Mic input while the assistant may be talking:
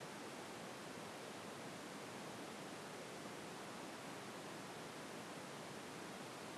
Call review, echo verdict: none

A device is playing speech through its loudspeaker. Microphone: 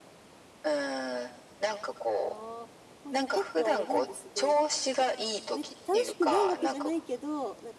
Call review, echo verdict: present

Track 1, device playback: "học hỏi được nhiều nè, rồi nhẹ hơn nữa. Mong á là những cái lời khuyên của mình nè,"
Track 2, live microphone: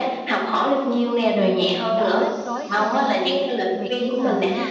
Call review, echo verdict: present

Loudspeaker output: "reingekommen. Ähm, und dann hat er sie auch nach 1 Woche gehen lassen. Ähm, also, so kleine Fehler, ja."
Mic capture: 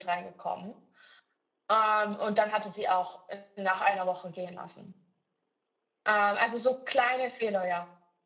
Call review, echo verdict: present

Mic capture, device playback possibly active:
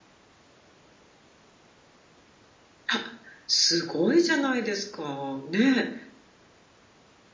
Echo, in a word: none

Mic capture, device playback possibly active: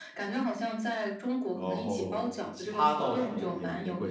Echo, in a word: present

